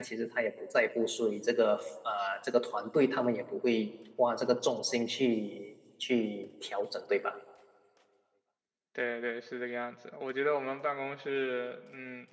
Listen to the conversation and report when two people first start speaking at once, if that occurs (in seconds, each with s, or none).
none